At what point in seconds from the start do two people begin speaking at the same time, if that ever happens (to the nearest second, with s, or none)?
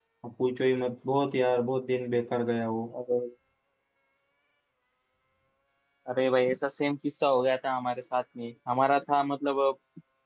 none